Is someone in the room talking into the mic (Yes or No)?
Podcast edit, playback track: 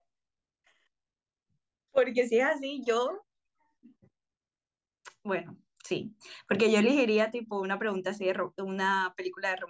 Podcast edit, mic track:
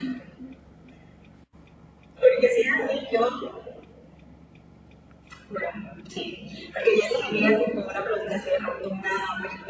No